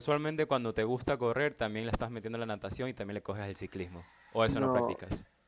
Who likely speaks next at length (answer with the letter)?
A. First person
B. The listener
B